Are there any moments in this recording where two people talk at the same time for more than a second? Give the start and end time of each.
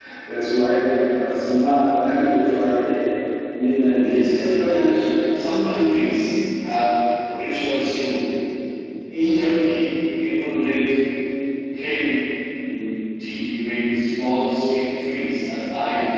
3.7-5.1

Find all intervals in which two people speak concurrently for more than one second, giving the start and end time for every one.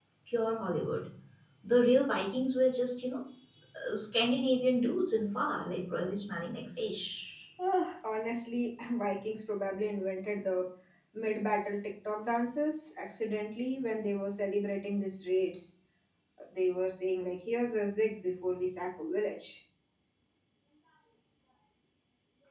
none

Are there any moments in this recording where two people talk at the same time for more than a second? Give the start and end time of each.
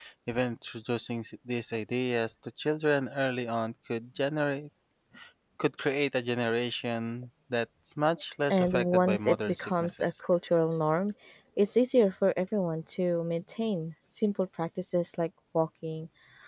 8.5-10.1

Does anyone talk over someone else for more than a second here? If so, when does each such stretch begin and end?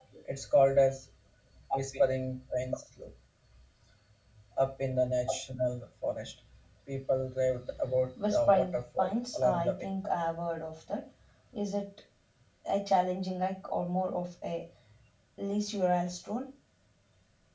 8.3-9.9

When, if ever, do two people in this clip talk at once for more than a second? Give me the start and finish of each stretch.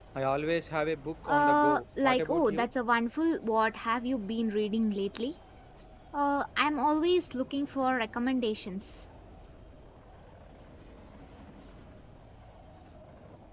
1.2-2.7

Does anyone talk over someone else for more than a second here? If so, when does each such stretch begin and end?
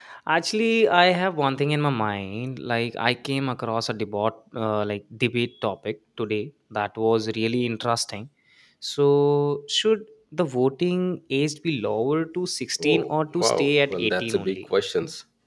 12.8-14.6

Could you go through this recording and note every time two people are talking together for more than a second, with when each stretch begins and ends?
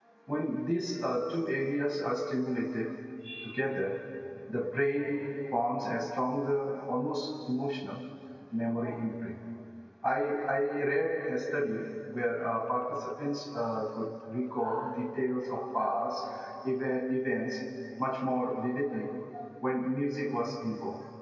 none

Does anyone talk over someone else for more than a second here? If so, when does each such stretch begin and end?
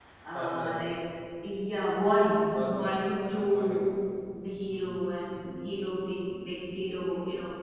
2.5-3.9

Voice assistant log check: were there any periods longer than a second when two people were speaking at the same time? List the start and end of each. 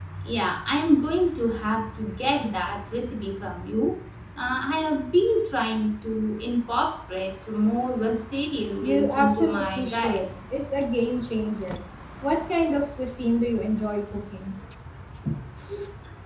8.8-10.2

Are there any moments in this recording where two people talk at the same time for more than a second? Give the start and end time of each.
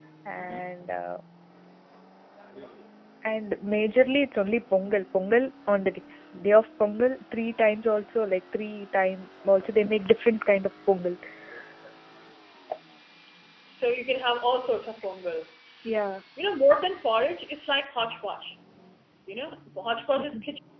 none

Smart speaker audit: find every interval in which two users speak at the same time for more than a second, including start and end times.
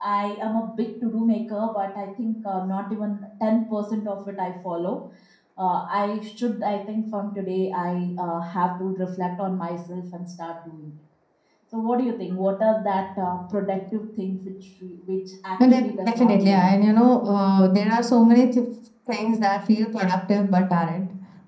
15.6-16.9

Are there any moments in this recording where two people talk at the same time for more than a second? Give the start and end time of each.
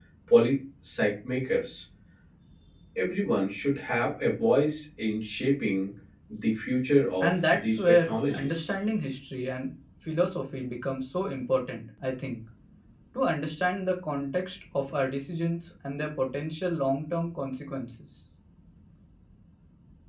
7.2-8.7

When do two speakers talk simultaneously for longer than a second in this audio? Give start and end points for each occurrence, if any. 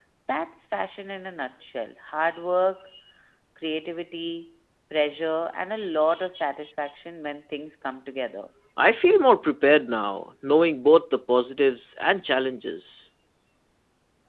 none

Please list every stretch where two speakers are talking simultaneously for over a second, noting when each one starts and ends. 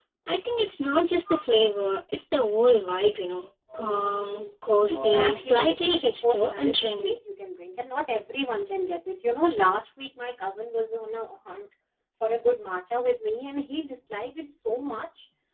4.9-7.1

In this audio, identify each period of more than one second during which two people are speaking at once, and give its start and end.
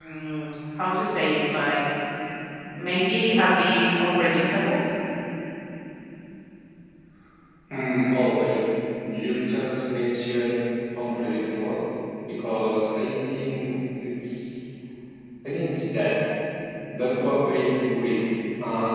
none

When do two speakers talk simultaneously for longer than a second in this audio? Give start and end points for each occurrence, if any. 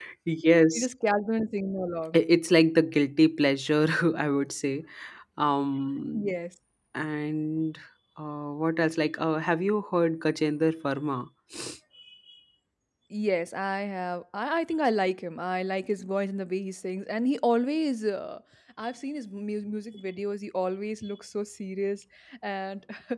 none

